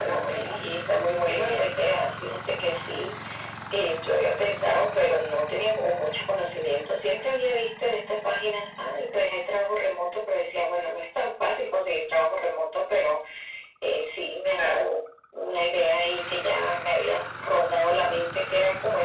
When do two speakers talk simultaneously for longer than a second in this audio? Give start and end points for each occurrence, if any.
none

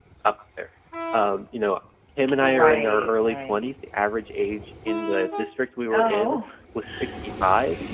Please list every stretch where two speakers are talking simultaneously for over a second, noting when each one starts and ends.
2.4-3.7

